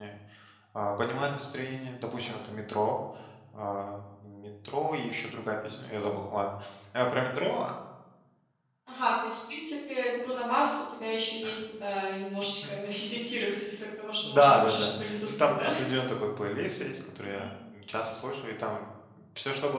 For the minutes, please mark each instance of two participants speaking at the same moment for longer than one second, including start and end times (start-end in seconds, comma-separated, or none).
14.2-15.7